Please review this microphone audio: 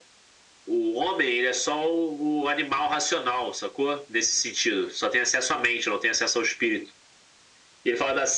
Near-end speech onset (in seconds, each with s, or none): none